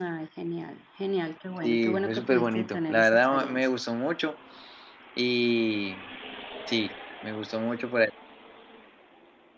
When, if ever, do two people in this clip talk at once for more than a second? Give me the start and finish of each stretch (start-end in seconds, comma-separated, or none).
1.6-3.6